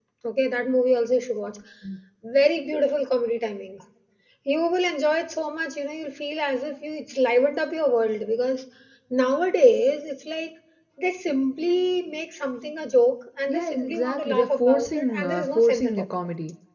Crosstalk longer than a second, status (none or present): present